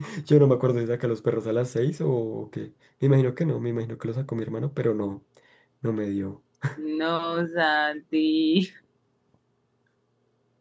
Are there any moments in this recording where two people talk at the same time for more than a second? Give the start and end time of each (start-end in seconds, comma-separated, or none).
none